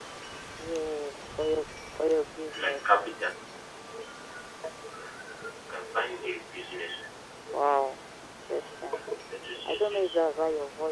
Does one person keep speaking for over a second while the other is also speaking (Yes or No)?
No